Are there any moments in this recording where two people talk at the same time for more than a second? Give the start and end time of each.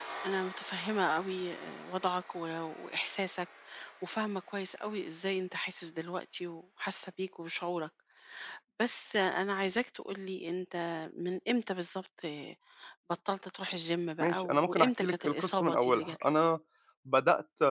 14.2-16.3

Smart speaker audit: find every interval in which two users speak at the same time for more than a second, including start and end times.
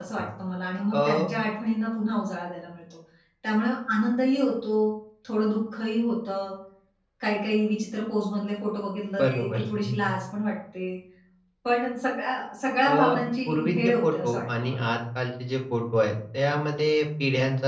13.5-14.8

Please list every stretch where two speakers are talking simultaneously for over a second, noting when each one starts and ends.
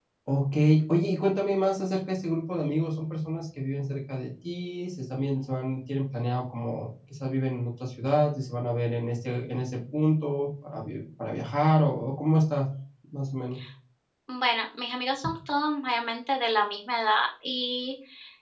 none

